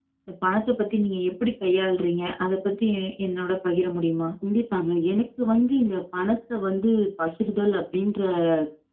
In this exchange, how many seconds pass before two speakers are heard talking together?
none

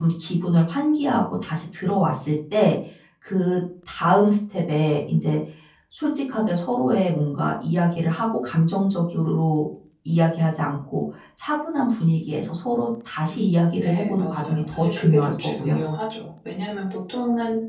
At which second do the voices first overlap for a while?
13.3 s

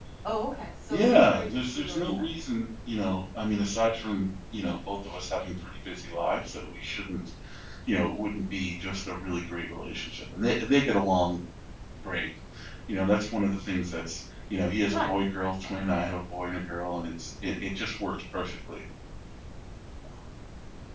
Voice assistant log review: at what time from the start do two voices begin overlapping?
0.9 s

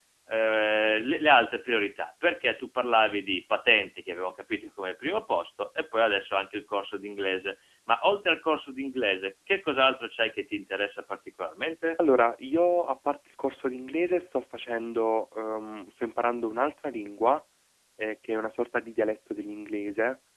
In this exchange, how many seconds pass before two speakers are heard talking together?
none

